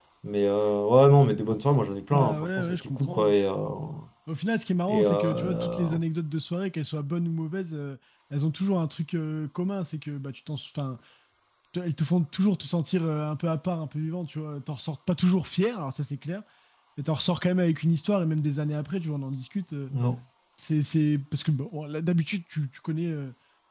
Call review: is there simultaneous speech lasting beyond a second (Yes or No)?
Yes